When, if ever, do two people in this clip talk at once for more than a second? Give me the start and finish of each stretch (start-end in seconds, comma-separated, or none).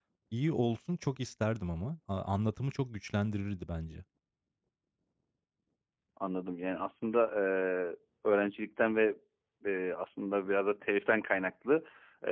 none